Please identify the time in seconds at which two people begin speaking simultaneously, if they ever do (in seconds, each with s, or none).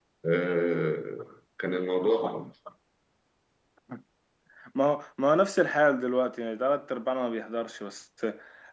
none